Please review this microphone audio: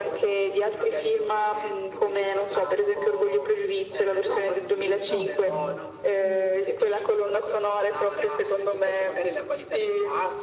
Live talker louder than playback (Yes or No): No